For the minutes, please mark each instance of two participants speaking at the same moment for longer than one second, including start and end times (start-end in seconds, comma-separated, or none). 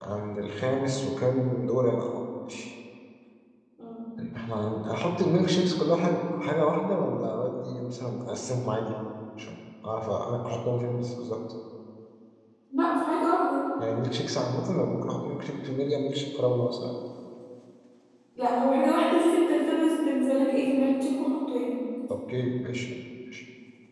none